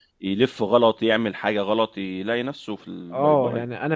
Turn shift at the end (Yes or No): Yes